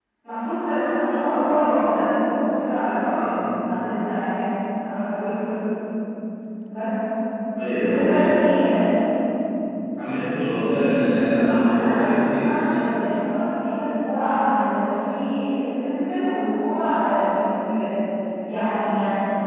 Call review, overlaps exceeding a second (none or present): present